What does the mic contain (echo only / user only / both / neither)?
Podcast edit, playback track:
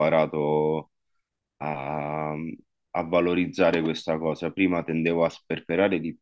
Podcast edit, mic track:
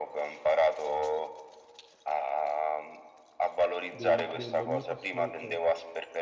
both